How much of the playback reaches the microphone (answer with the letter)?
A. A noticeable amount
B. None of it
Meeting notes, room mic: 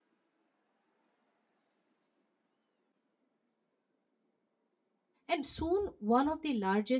B